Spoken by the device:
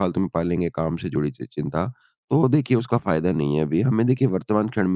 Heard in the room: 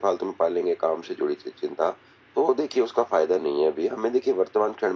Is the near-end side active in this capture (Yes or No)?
No